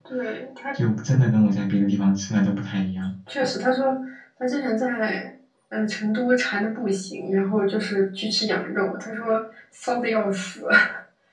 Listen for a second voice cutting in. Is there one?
No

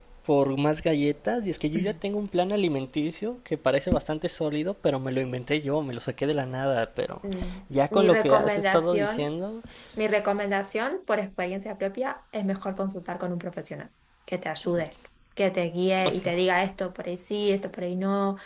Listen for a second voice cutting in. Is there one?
Yes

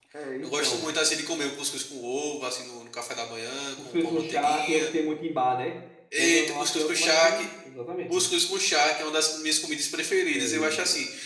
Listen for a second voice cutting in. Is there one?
Yes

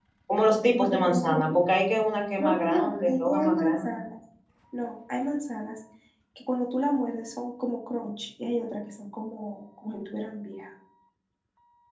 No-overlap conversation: No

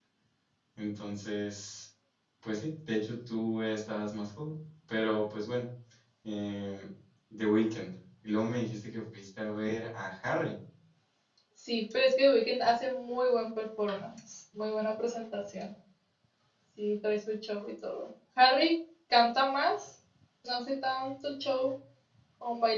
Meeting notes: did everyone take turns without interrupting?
Yes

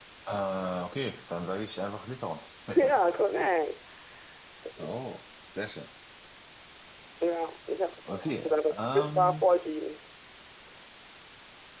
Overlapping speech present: Yes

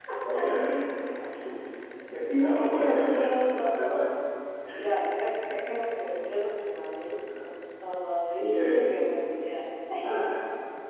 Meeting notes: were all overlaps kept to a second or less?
No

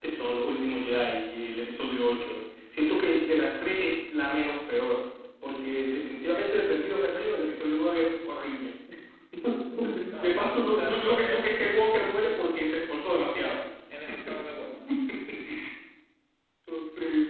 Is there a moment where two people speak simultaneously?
Yes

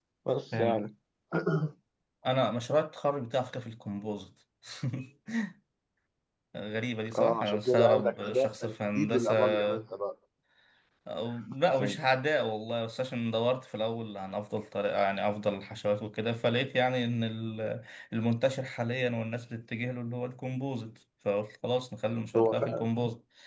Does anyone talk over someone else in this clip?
Yes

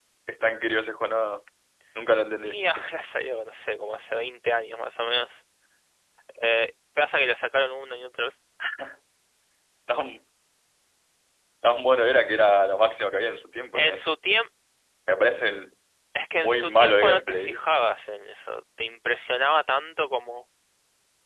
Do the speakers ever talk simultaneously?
Yes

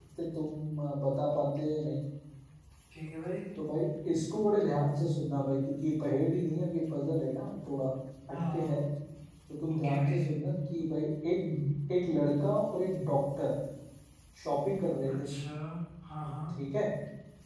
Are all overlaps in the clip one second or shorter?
Yes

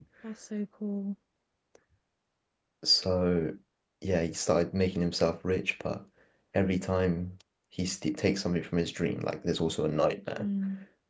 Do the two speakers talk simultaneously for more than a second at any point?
No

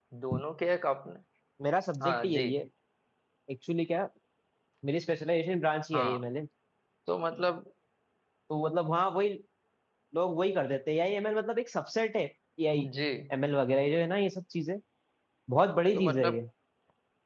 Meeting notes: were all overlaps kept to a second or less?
Yes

